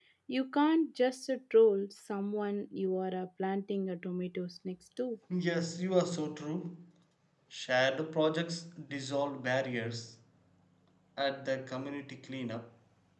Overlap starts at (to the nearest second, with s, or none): none